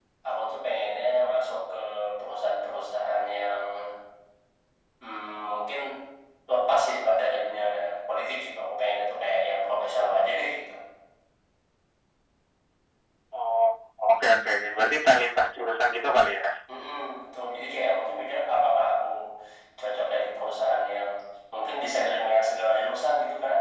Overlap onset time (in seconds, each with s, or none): none